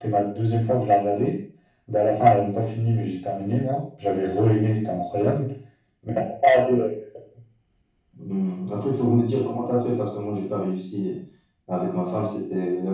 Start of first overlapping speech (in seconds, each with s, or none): none